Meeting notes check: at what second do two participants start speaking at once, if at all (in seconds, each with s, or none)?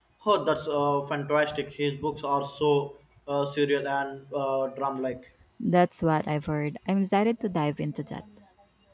none